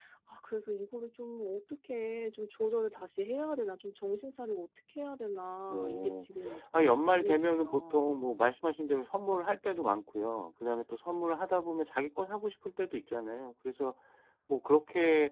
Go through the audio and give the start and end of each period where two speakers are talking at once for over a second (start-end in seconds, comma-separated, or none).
6.7-8.1